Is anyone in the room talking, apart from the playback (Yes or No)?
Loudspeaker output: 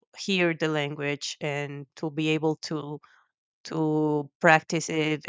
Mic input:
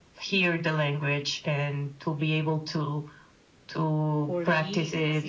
Yes